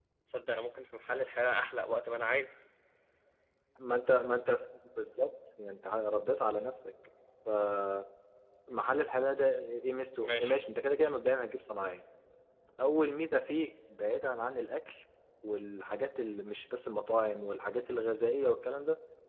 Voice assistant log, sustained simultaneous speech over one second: none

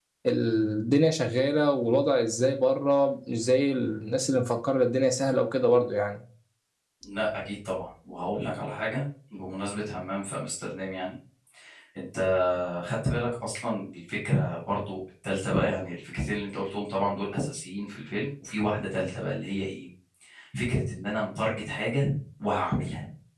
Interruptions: none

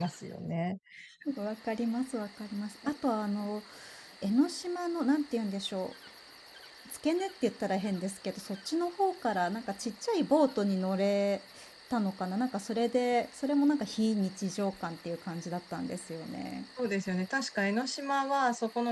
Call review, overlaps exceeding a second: none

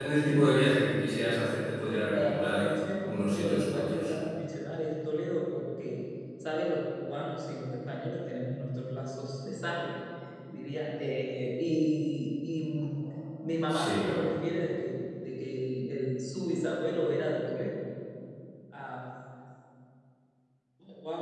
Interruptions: present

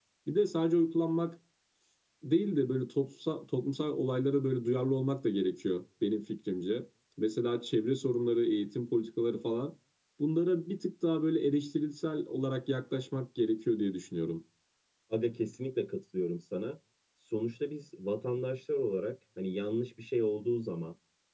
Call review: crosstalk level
none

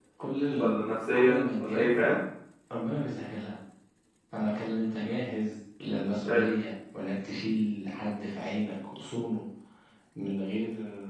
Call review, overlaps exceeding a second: present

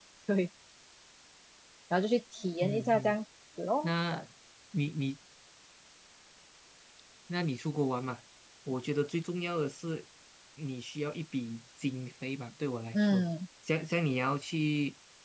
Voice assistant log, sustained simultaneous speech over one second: none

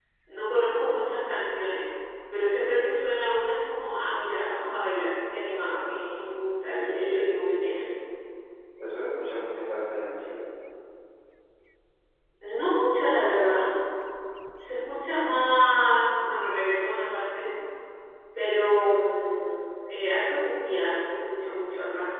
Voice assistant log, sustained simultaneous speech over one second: none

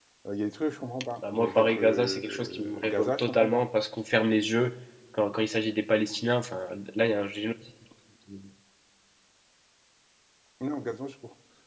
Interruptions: present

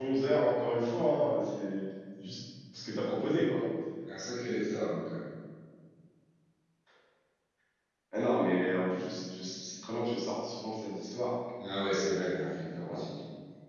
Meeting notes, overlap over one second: none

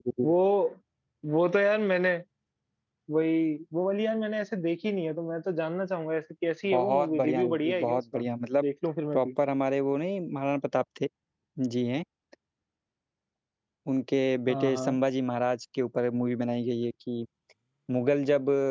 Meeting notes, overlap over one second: present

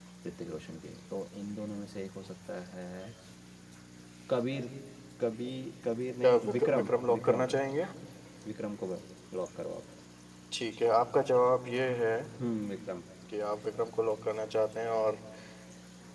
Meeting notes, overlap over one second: present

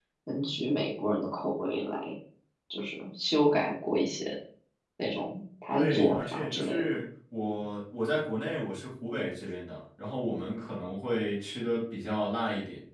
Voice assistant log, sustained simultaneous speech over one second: present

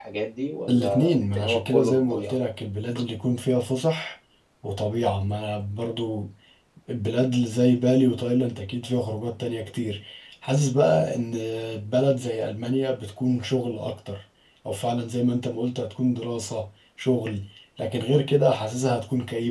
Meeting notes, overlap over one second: present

